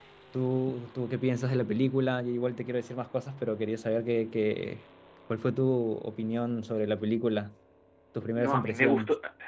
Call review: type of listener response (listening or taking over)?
taking over